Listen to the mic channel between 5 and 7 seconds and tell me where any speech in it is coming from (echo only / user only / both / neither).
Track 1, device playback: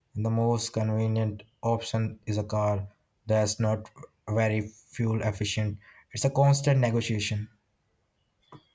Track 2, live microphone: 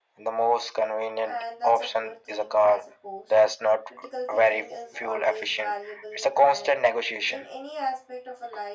both